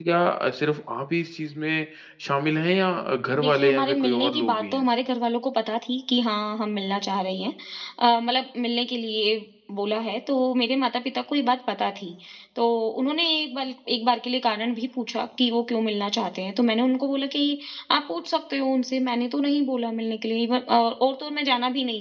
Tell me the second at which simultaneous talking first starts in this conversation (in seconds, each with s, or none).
3.4 s